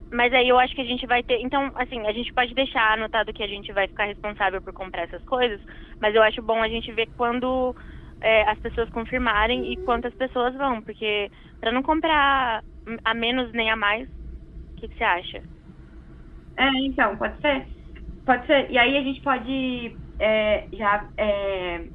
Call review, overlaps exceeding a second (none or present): none